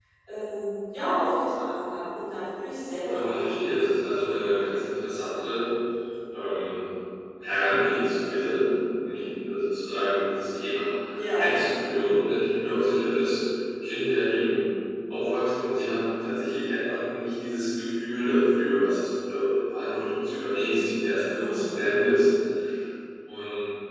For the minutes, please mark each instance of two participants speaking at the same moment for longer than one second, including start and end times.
3.0-4.4

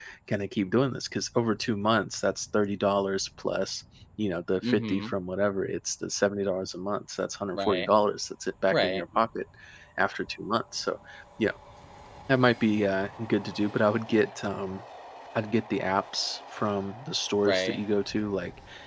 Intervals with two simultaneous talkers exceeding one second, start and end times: none

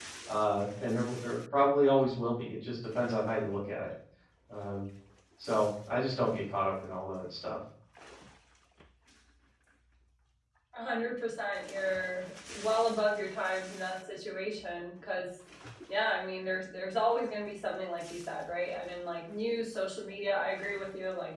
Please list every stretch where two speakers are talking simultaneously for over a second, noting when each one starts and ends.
none

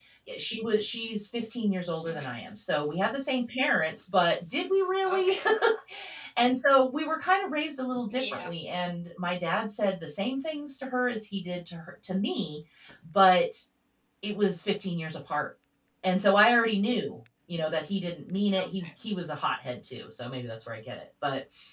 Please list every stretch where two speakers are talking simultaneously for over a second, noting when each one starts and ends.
none

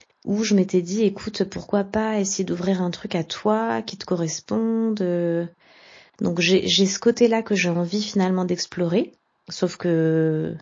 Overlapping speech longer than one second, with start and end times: none

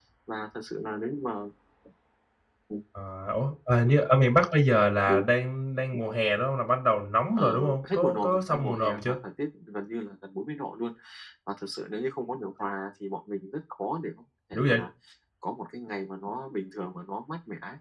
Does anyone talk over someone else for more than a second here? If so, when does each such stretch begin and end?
7.3-9.2

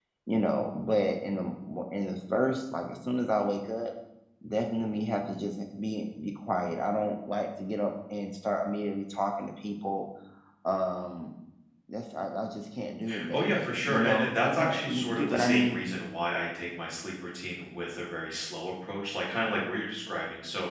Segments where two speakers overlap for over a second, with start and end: 13.3-15.8

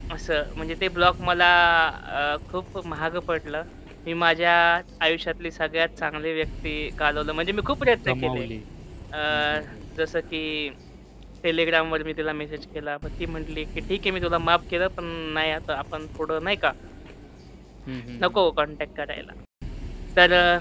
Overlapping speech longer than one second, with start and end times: none

